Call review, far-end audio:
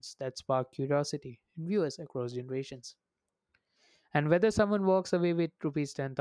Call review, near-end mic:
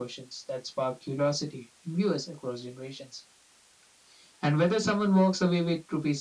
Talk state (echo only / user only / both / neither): echo only